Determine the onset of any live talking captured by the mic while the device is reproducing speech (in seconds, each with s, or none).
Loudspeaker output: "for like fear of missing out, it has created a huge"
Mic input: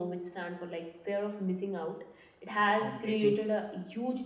2.6 s